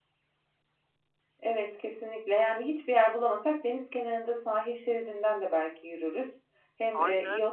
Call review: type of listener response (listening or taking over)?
listening